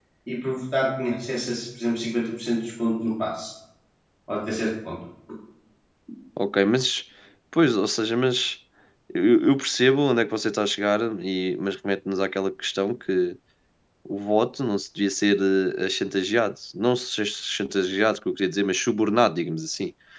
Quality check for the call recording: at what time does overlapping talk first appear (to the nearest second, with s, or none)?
none